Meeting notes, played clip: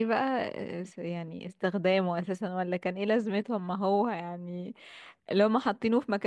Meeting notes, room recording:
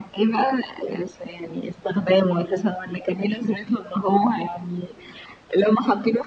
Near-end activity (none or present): none